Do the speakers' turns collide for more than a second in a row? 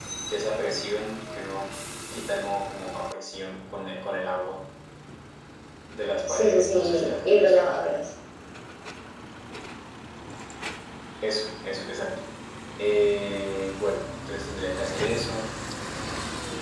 Yes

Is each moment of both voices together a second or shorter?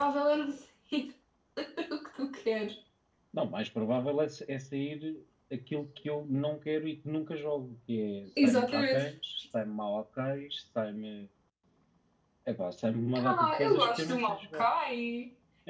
No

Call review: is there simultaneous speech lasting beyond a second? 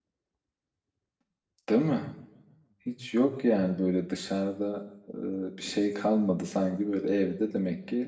No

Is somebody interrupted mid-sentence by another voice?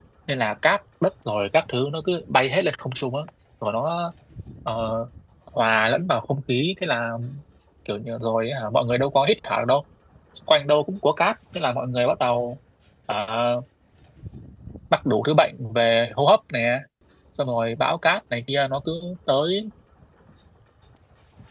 No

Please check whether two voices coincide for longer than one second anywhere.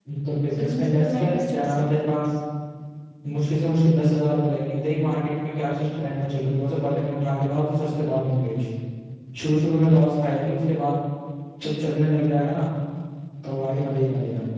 Yes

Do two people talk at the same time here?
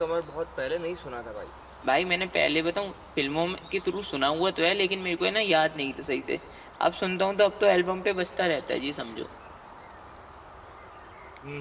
No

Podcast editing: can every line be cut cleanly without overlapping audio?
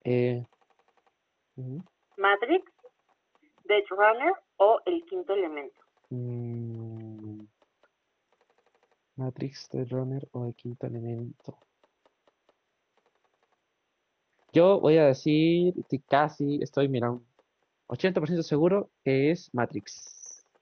Yes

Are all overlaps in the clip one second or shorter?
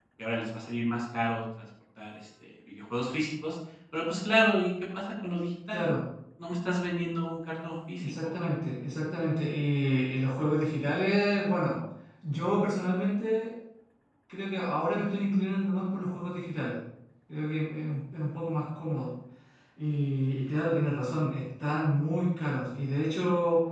Yes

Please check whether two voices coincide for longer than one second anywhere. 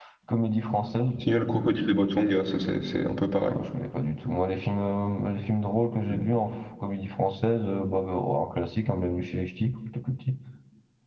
No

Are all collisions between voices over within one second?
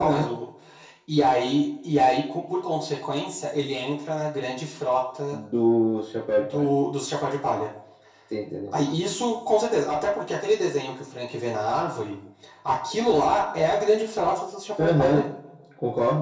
Yes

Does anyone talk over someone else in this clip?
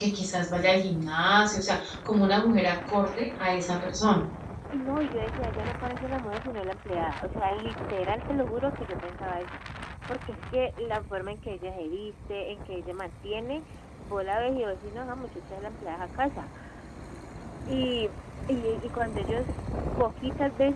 No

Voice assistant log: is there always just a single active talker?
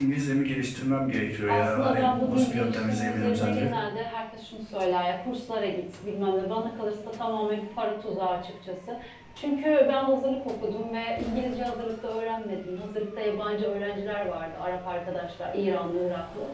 No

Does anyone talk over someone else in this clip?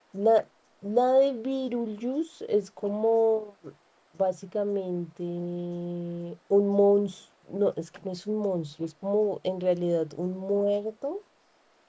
No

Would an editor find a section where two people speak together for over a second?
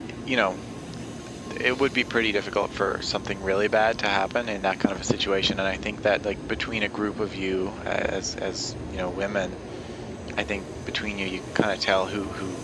No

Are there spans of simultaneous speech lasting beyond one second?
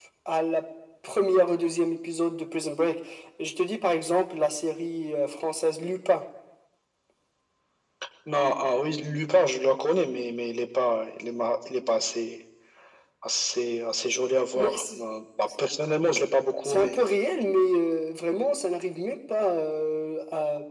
No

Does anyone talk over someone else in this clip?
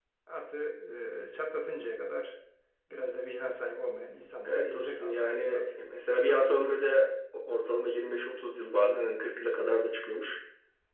Yes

